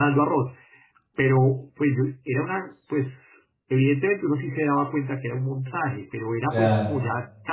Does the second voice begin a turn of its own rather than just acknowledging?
No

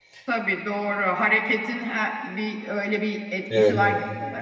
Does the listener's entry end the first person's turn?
Yes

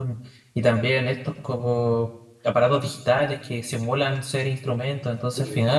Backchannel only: Yes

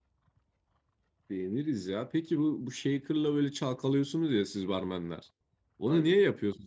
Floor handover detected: No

